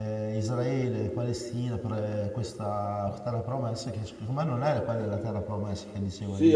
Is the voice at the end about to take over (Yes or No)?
Yes